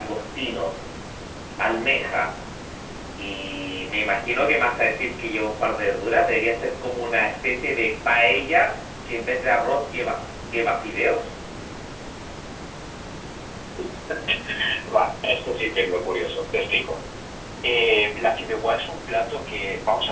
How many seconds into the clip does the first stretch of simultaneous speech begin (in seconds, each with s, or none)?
none